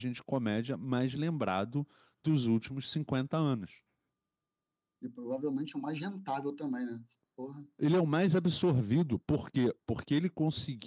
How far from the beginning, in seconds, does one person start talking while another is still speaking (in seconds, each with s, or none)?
none